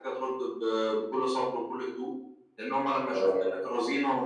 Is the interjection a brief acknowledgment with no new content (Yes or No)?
Yes